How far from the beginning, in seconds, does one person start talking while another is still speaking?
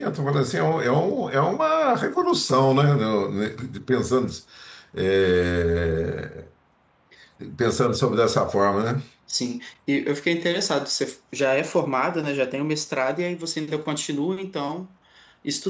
none

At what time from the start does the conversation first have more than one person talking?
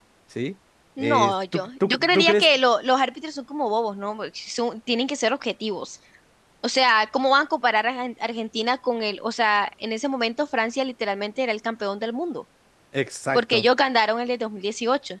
1.0 s

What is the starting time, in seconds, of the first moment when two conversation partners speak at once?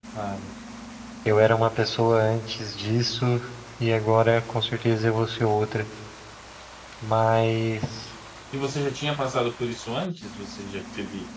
none

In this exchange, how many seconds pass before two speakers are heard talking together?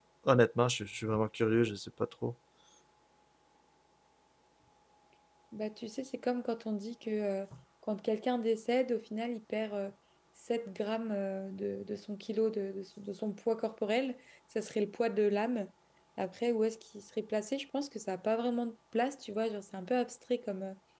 none

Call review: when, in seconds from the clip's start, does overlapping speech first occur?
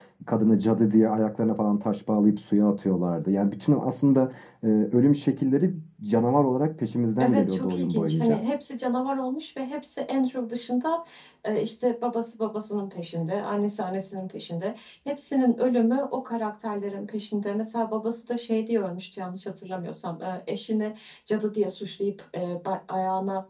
7.2 s

